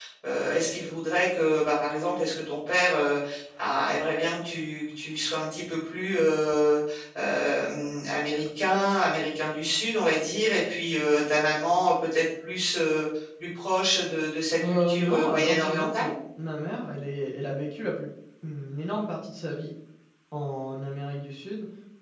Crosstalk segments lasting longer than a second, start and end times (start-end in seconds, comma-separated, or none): 14.6-16.1